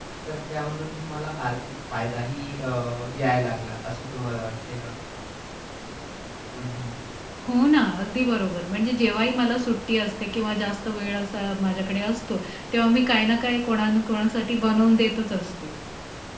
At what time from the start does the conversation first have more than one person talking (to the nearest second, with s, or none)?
none